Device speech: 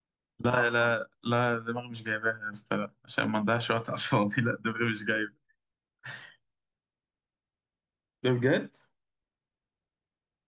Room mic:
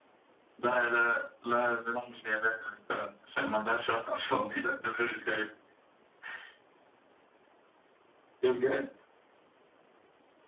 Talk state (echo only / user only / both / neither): echo only